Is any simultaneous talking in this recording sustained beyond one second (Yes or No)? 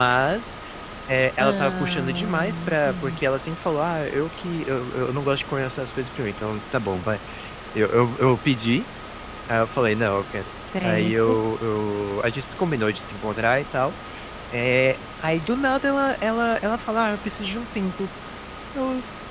Yes